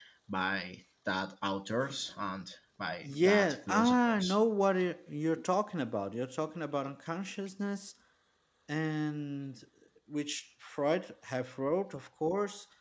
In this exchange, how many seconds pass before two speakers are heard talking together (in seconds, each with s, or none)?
3.0 s